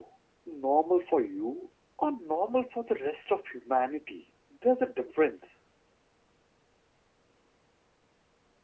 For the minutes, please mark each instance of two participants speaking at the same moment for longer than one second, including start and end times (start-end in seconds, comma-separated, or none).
none